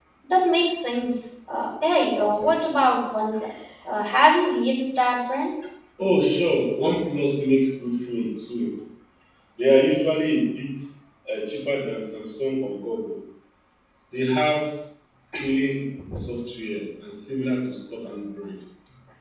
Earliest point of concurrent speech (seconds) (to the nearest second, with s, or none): none